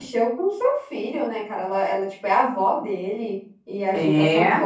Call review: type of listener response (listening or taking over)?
listening